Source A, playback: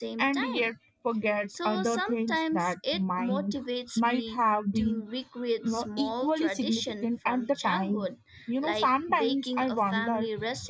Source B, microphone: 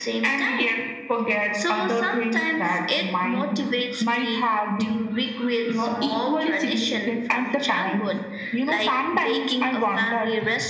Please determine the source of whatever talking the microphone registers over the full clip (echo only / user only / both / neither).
echo only